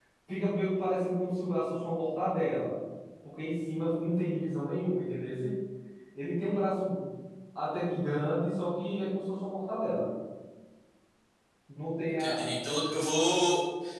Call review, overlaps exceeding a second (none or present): none